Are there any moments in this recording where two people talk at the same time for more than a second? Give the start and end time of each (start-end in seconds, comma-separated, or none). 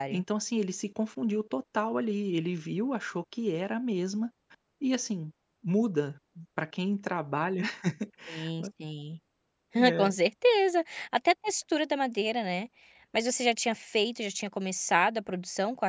none